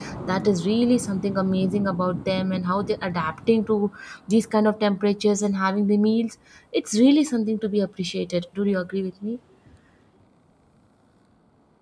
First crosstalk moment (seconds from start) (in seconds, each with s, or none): none